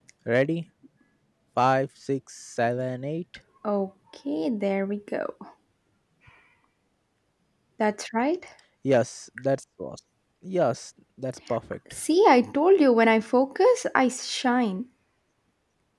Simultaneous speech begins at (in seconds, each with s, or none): none